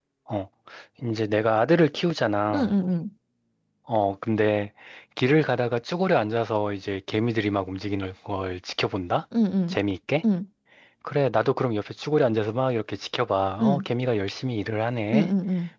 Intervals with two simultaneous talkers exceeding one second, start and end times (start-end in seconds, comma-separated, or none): none